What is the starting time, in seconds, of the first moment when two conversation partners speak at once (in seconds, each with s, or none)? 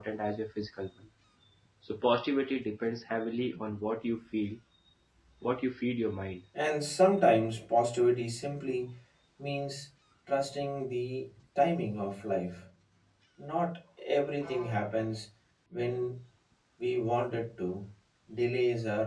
none